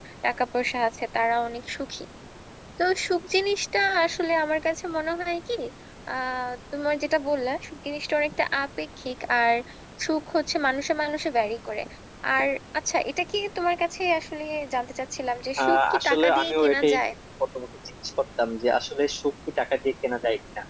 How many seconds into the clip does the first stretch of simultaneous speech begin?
15.6 s

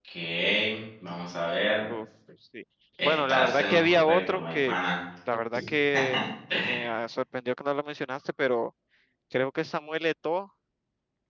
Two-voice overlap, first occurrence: 3.0 s

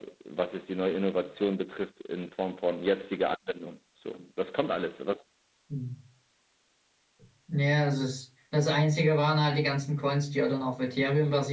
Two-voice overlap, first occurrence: none

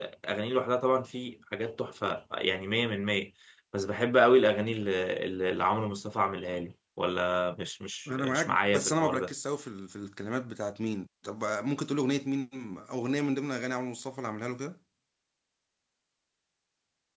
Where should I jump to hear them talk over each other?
8.1 s

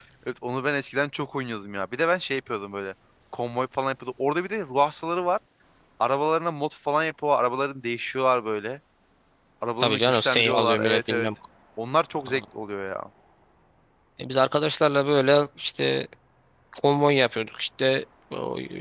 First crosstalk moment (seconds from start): 9.8 s

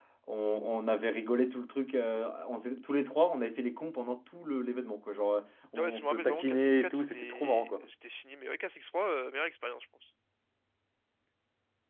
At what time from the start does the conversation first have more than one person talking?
5.8 s

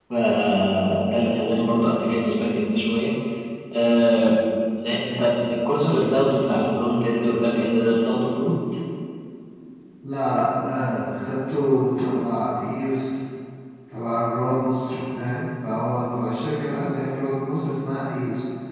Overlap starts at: none

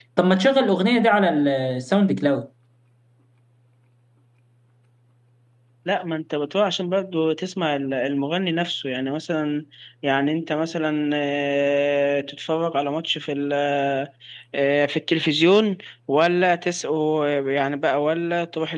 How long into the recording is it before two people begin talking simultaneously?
none

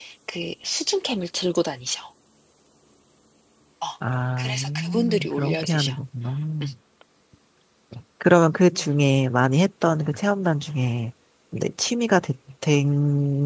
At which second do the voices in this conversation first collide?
4.4 s

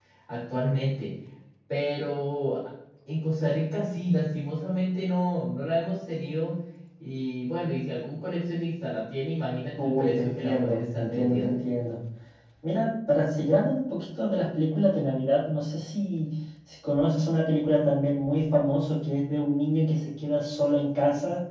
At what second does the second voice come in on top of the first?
9.8 s

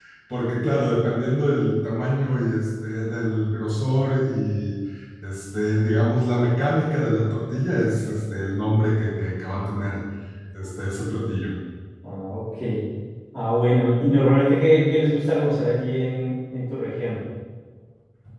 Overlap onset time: none

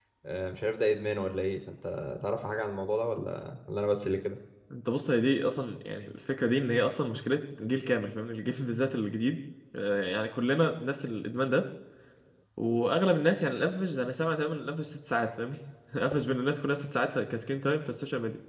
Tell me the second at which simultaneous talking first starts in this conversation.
none

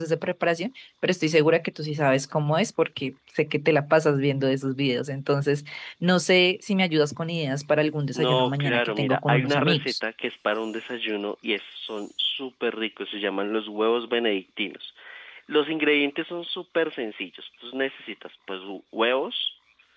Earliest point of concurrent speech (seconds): 8.1 s

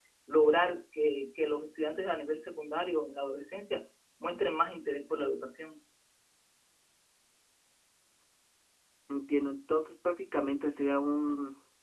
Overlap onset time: none

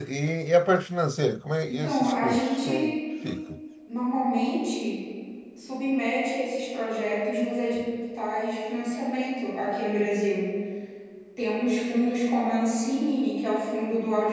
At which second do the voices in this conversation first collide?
1.7 s

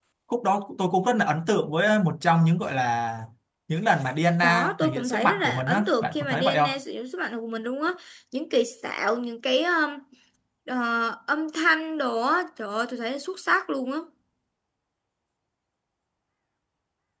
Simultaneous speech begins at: 4.4 s

